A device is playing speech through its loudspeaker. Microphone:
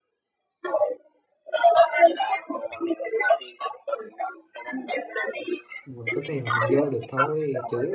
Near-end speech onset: 5.8 s

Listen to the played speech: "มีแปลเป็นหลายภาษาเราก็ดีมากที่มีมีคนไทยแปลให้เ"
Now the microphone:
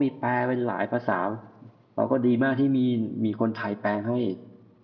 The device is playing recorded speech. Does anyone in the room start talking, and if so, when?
none

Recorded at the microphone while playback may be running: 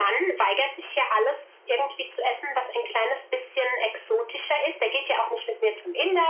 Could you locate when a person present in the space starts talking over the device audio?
none

